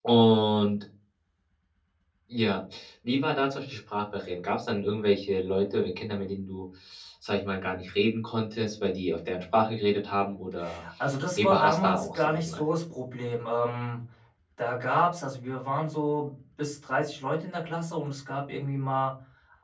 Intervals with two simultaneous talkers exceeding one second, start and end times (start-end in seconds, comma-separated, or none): 11.4-12.7